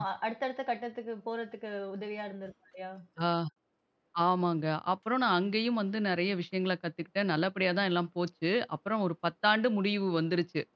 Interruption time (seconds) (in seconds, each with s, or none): none